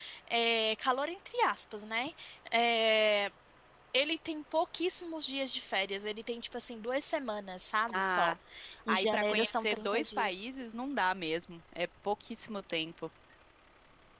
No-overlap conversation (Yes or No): No